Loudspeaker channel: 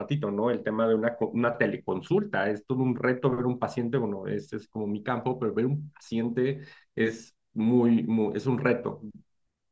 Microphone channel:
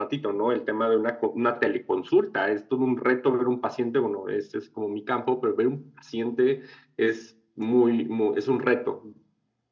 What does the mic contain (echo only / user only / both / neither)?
echo only